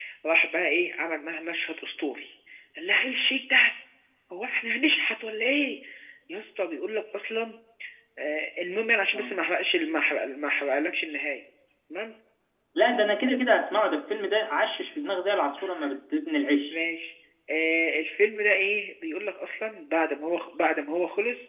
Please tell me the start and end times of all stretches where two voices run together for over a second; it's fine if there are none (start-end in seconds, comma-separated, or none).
none